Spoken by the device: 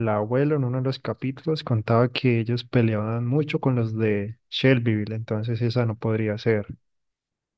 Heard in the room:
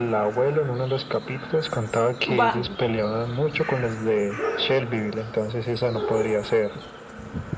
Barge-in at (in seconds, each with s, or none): 2.2 s